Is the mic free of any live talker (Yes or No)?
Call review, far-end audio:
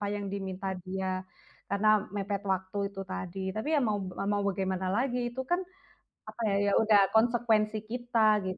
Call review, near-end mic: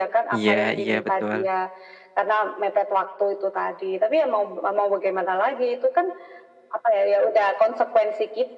No